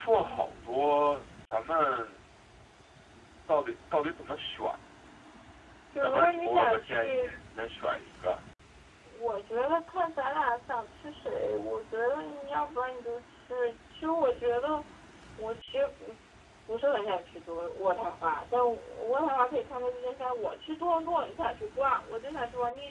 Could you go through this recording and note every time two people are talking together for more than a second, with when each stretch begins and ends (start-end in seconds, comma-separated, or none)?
6.0-7.3